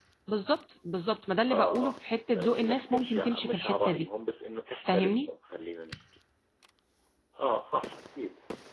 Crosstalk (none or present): present